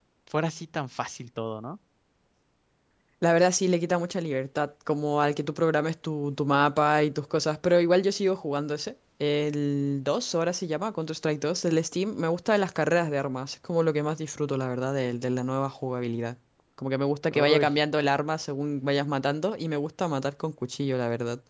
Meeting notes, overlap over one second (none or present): none